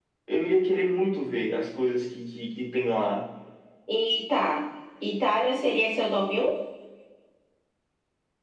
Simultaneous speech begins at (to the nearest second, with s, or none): none